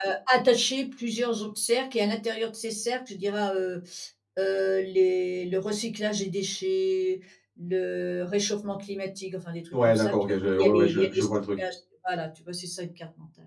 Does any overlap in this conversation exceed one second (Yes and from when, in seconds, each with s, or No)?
Yes, from 9.7 s